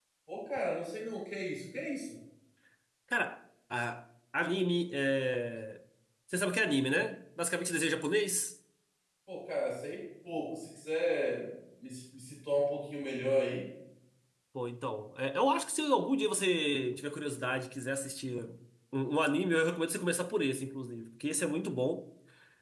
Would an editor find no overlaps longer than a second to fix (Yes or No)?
Yes